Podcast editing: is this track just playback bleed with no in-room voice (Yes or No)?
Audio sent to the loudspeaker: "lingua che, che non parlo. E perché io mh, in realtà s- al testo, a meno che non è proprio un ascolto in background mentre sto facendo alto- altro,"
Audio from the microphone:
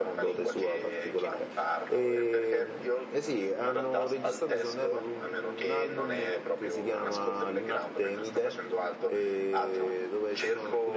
No